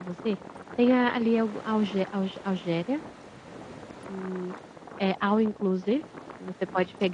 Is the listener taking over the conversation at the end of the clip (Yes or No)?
No